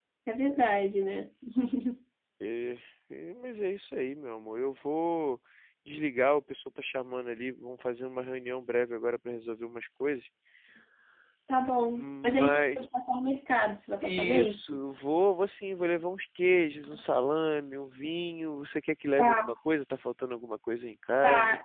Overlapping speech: Yes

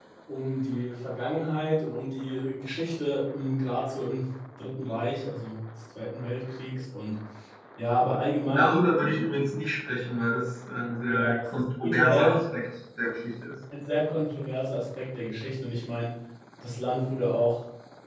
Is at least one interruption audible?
Yes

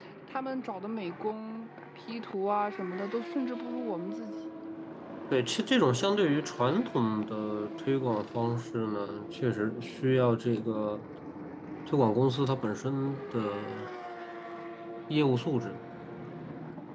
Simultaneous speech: No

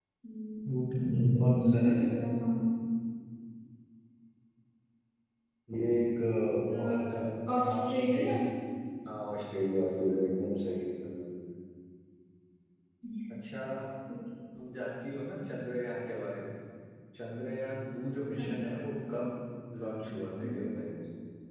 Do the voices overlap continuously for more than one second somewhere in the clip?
Yes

